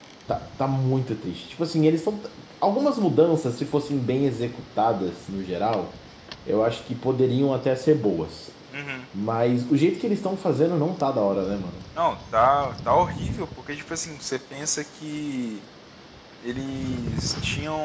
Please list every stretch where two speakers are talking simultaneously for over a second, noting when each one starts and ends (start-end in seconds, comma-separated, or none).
none